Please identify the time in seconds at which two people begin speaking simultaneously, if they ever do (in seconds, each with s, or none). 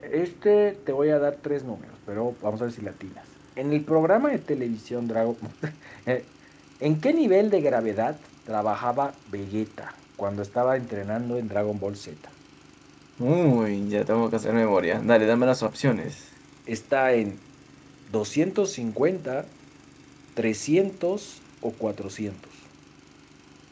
none